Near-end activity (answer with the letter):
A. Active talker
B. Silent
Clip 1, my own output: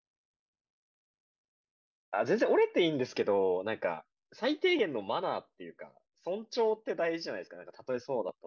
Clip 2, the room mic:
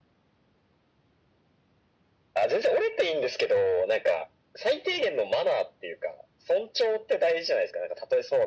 B